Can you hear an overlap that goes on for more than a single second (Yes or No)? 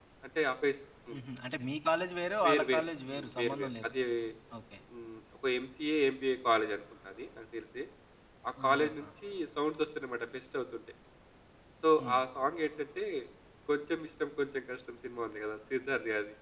Yes